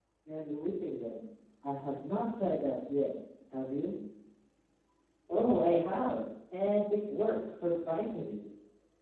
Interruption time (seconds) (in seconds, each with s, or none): none